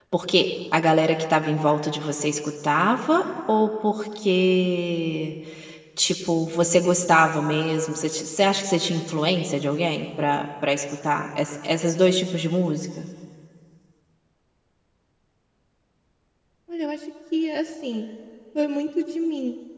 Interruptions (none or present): none